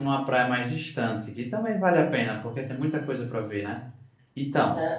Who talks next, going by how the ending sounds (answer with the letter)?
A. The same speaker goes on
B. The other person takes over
B